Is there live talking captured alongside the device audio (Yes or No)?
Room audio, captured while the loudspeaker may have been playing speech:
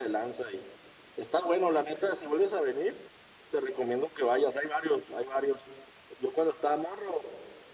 No